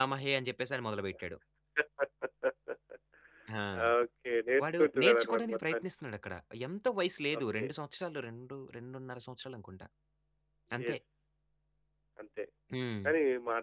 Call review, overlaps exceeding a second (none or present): present